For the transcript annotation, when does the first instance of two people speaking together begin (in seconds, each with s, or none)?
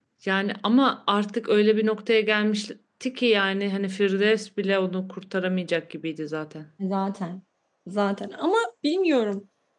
none